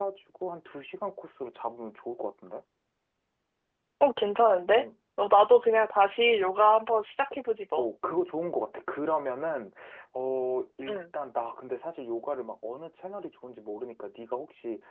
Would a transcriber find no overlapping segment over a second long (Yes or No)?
Yes